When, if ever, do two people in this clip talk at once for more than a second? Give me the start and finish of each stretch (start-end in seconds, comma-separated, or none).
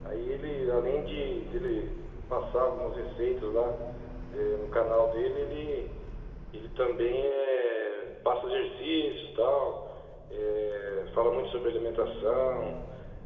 none